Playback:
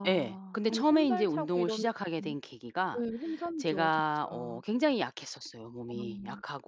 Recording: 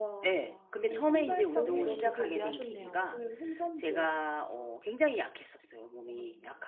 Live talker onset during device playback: 1.5 s

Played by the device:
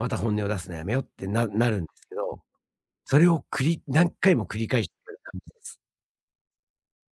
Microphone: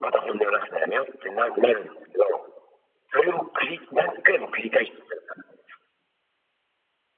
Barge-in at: none

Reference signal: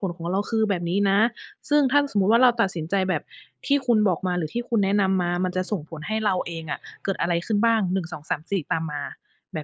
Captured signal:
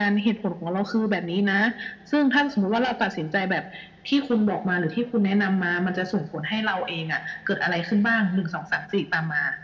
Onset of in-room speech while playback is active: none

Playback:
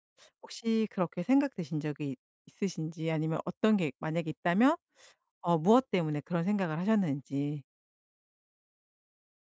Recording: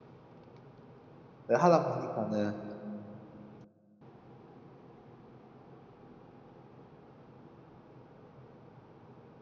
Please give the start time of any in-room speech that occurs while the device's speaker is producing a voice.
1.5 s

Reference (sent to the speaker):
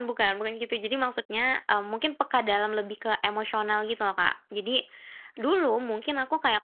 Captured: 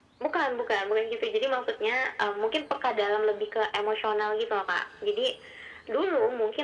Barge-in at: none

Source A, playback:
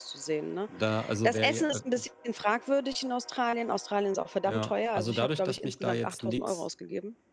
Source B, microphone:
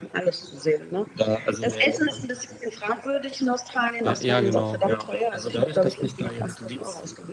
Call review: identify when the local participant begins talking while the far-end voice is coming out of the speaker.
4.0 s

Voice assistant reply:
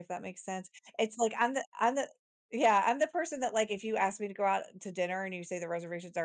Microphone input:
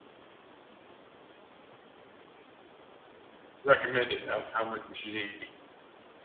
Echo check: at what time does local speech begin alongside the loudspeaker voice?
3.6 s

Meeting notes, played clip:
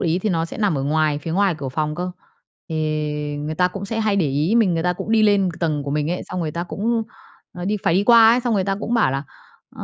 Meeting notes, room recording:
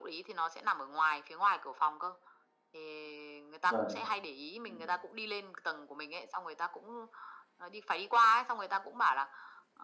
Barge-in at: 3.7 s

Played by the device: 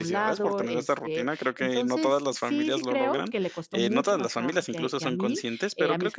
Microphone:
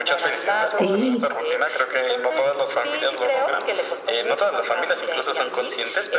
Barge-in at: 0.7 s

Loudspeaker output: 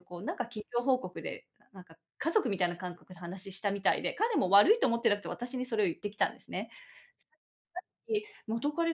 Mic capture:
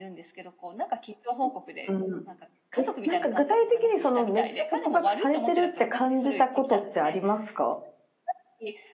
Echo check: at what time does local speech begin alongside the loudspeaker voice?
1.4 s

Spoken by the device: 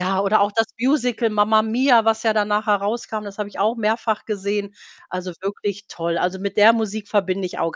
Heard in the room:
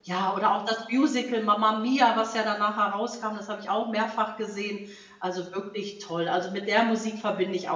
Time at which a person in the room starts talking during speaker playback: none

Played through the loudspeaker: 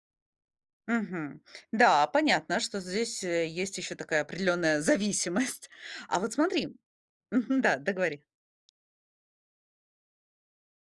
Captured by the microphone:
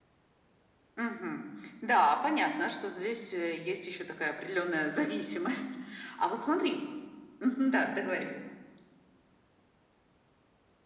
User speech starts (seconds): none

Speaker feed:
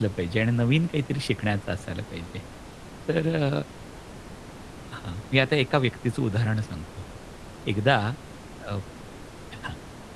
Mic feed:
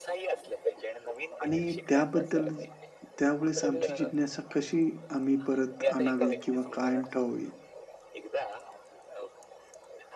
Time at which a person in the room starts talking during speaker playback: 1.4 s

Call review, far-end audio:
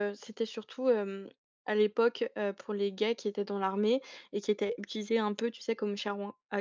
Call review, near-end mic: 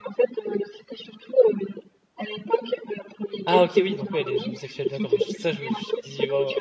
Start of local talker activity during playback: 3.5 s

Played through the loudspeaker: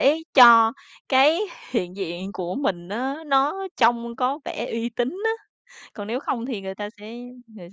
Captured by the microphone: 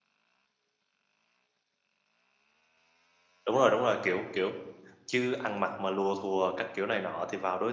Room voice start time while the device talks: 3.4 s

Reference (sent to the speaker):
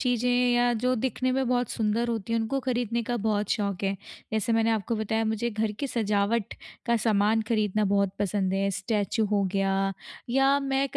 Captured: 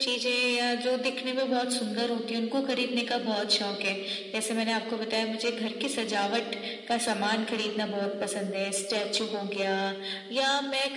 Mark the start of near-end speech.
none

